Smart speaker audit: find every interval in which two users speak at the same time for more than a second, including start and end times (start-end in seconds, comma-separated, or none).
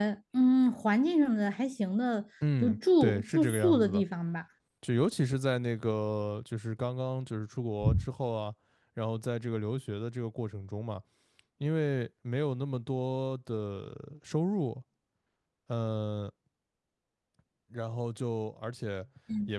2.6-4.0